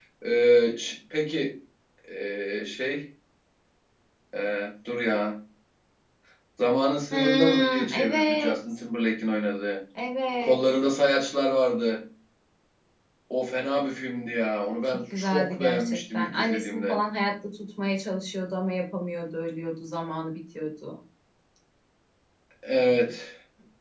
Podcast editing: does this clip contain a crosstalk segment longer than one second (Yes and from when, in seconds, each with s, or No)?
Yes, from 7.1 s